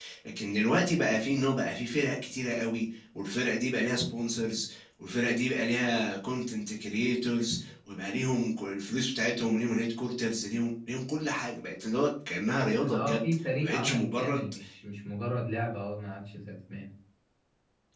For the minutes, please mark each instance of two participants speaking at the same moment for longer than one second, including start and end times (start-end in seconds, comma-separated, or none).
12.8-14.4